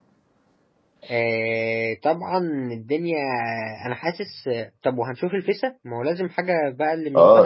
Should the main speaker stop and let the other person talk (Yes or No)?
Yes